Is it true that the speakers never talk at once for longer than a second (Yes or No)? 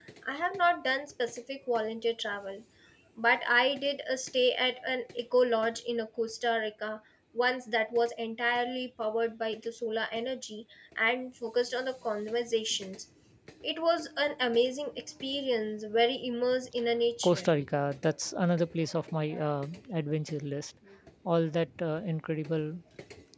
Yes